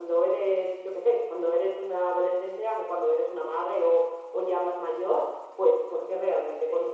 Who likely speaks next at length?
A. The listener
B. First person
B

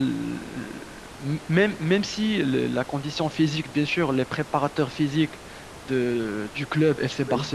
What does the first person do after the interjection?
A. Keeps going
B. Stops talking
A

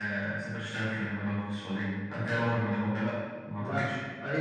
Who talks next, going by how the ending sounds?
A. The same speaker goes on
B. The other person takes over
B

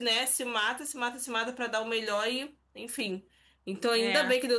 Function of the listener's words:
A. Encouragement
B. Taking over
A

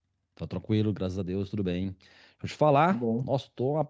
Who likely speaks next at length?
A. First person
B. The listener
A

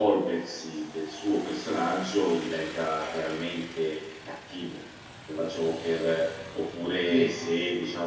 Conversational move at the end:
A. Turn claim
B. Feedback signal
B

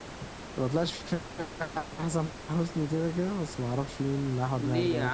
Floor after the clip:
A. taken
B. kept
A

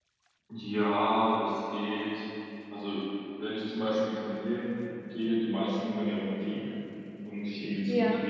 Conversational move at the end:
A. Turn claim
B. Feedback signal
B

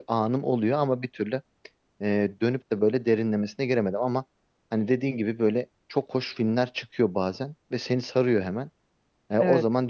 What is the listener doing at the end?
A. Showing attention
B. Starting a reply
A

